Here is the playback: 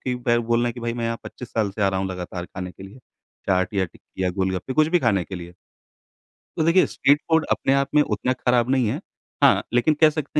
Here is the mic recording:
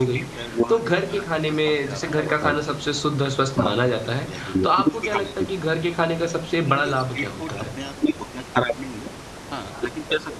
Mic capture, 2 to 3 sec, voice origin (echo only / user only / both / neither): both